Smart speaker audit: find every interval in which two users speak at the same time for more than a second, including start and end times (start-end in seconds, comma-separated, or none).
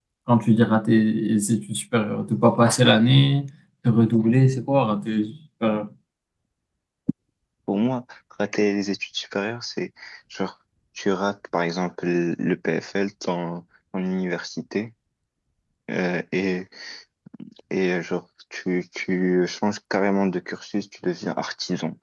none